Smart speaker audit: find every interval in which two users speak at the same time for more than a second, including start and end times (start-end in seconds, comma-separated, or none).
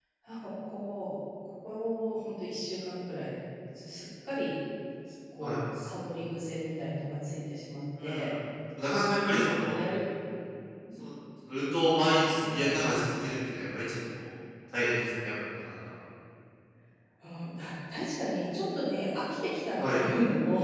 none